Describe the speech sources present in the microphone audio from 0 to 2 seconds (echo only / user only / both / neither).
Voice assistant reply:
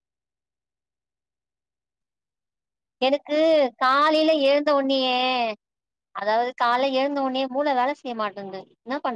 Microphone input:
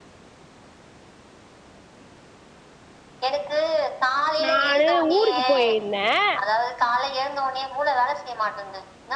neither